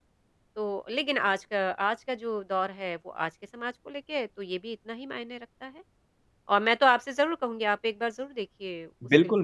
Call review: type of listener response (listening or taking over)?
taking over